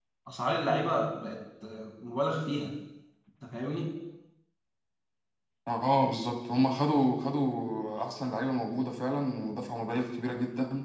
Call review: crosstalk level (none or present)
none